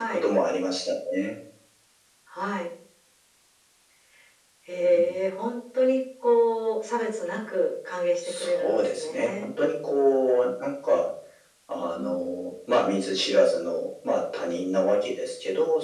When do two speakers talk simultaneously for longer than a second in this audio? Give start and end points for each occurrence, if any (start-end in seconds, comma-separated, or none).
8.2-9.5